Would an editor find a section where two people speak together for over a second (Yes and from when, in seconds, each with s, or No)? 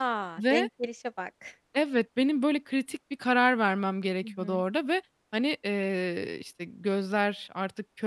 No